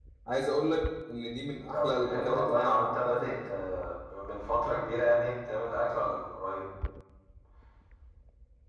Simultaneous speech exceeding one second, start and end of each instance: 1.7-3.4

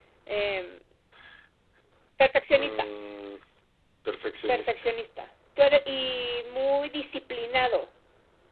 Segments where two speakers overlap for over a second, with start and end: none

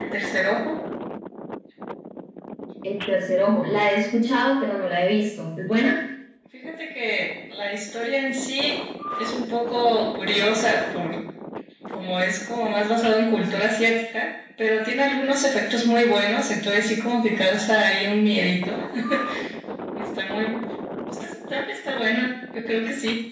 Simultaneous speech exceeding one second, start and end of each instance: none

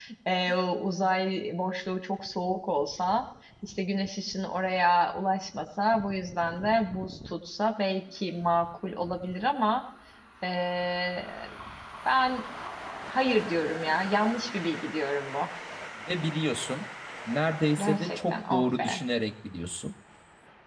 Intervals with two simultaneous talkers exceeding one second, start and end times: 17.8-19.0

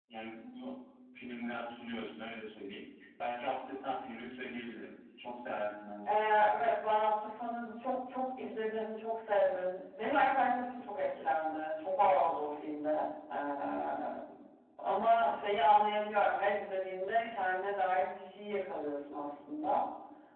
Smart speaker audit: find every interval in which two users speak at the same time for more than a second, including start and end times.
none

